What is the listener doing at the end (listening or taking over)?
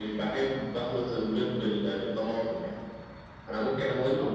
listening